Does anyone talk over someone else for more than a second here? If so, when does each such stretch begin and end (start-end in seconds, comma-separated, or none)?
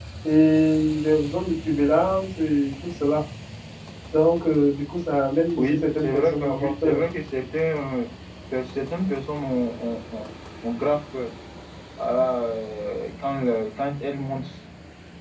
5.6-7.0